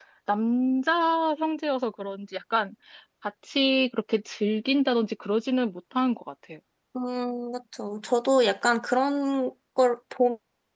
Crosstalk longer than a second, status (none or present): none